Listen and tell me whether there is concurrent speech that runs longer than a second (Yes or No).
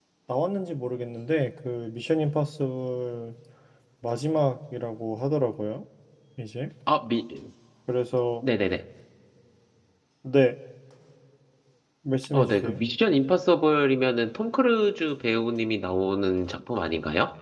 No